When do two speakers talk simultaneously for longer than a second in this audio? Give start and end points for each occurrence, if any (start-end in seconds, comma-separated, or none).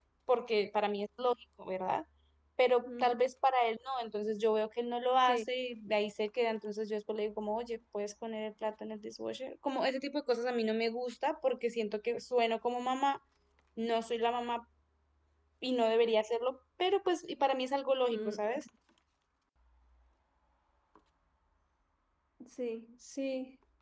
none